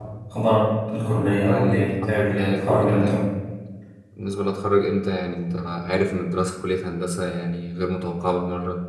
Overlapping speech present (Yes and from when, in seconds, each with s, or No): Yes, from 1.2 s